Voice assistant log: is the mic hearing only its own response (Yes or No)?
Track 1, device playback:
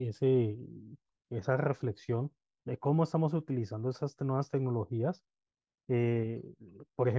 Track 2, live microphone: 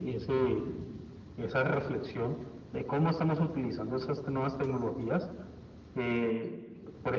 Yes